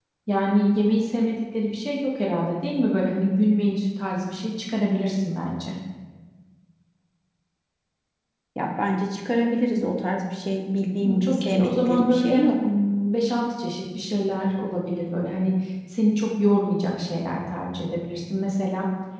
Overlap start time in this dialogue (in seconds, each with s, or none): 11.0 s